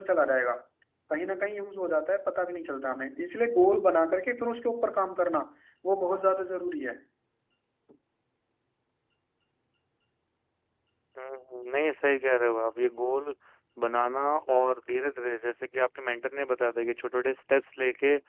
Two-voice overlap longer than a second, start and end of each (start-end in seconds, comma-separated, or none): none